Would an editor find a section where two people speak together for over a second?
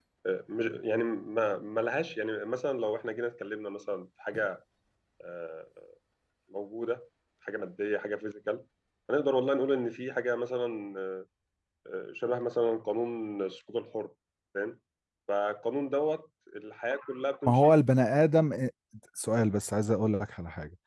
No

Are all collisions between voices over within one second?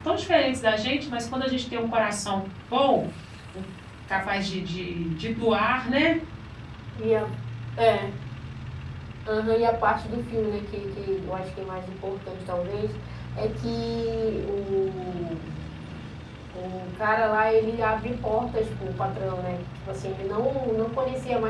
Yes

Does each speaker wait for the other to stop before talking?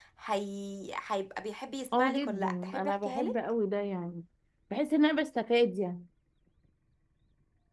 No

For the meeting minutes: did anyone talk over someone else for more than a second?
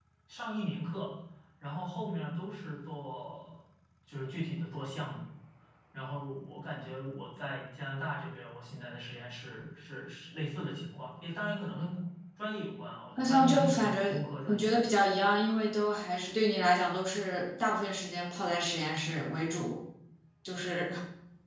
Yes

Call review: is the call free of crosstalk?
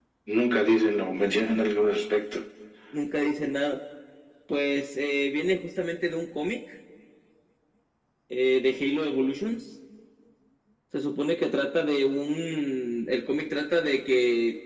Yes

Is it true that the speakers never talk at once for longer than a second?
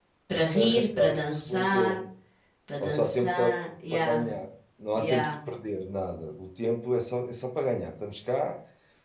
No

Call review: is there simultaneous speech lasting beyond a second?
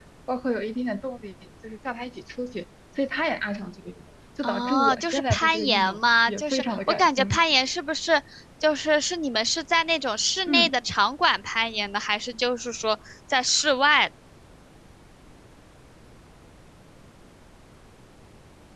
Yes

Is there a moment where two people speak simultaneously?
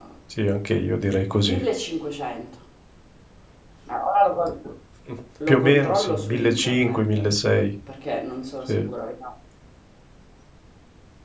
Yes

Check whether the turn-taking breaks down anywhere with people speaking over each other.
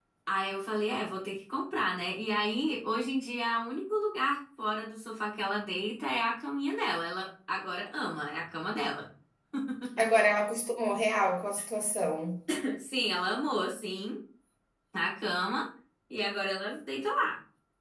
No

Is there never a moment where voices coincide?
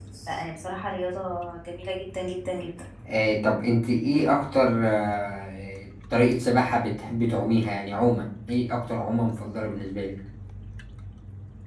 Yes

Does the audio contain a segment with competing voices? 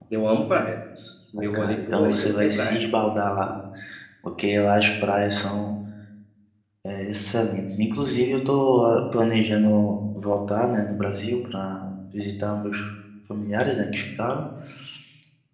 Yes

